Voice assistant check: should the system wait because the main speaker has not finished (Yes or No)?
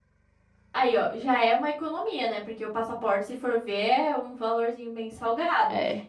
Yes